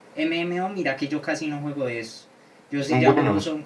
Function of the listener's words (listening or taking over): listening